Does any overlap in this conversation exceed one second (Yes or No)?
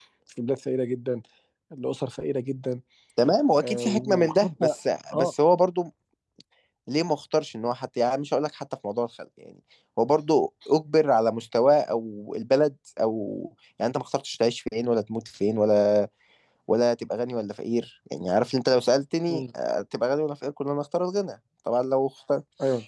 Yes